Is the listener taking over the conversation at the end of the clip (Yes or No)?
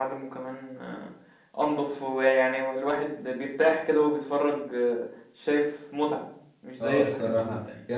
Yes